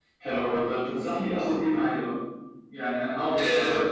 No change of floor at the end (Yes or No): Yes